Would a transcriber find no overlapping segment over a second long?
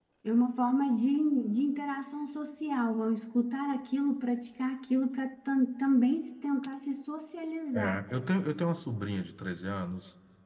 Yes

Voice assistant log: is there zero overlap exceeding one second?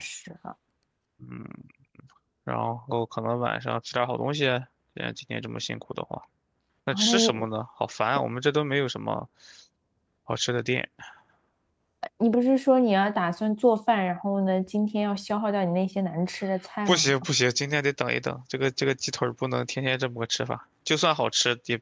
Yes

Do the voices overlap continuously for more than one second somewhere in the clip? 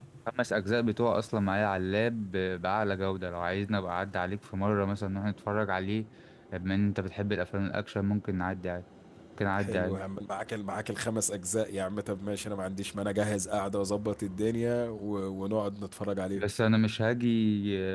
No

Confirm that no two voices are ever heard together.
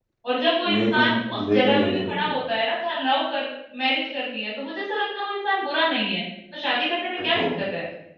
No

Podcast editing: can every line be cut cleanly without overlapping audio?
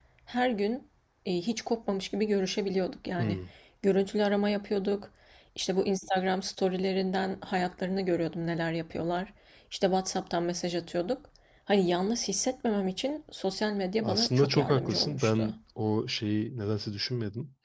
No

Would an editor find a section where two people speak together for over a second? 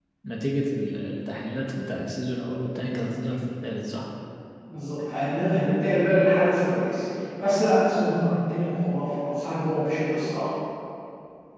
No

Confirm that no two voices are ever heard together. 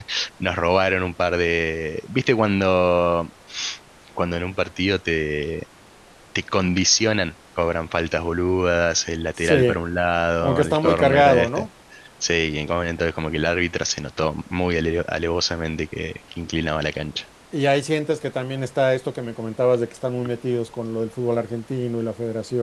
No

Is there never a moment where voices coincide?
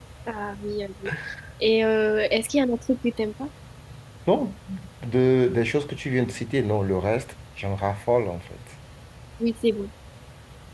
Yes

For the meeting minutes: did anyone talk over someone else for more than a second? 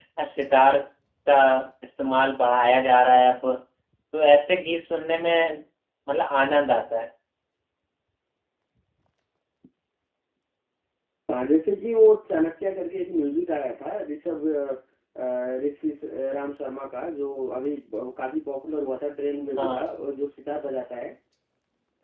No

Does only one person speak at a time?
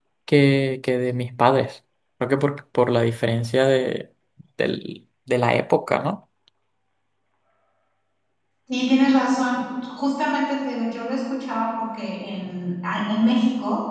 Yes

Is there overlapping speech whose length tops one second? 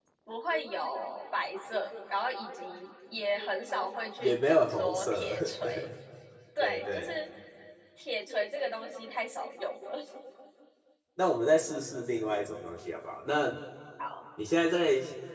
Yes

